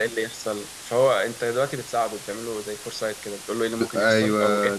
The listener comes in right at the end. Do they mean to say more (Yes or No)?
No